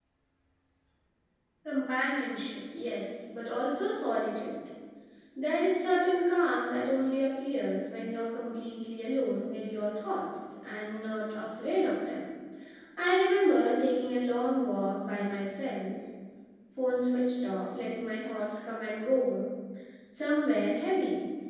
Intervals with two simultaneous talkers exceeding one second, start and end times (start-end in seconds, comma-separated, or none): none